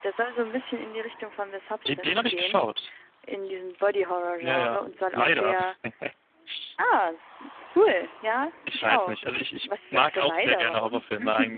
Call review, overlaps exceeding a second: present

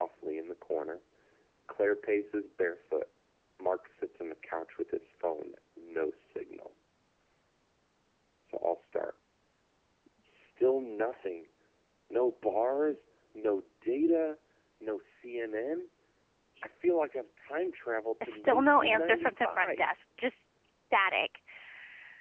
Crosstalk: present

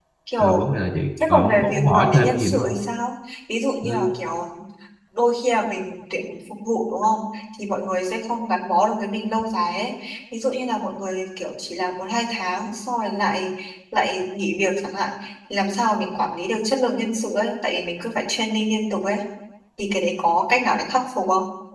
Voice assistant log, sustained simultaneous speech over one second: present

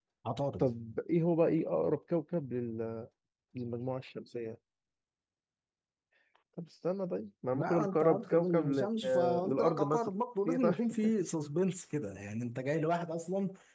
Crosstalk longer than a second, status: present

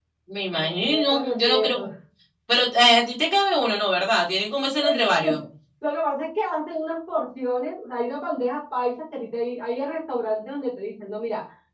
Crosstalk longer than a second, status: present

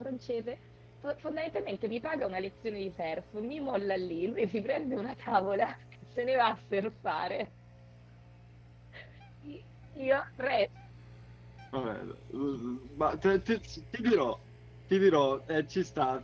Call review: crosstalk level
none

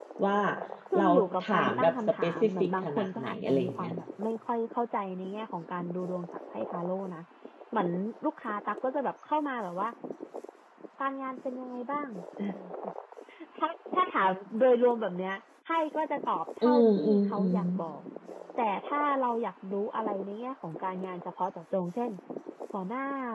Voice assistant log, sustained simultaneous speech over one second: present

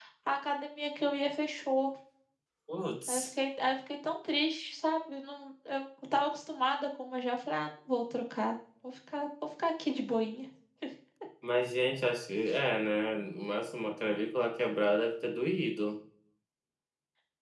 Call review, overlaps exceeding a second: none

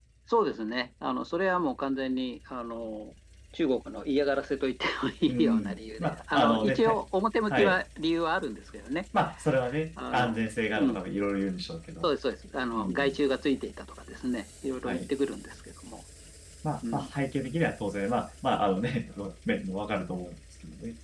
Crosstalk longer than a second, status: present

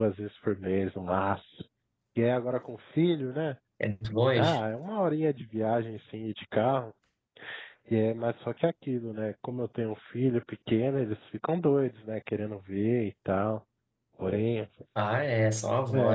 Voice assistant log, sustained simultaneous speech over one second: none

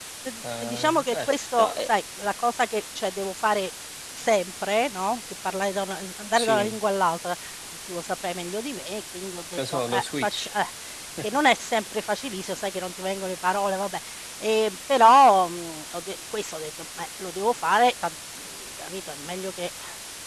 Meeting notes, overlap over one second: present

